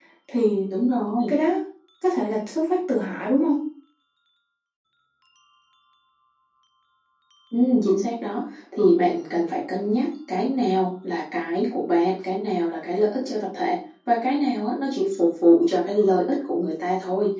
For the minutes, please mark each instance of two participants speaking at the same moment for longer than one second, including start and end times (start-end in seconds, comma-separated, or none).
none